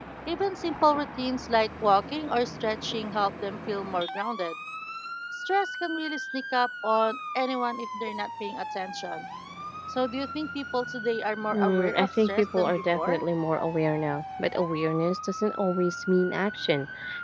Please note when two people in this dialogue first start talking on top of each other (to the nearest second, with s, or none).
12 s